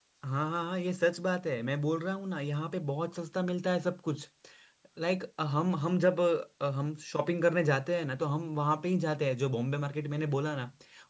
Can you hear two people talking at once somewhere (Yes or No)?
No